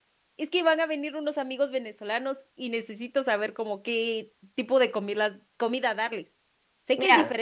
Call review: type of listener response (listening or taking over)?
listening